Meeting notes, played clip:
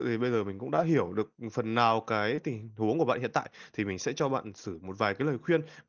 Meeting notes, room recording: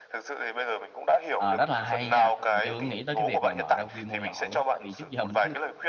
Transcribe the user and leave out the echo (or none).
Ờ, rất là hay nha, mình chưa có nghĩ tới cái việc mà mở ra quy mô nhỏ luôn á, tại vì trước giờ mình cứ